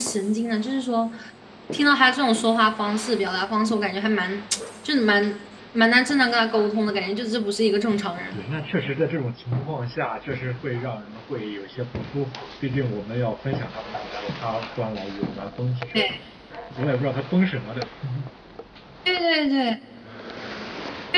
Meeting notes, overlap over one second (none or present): none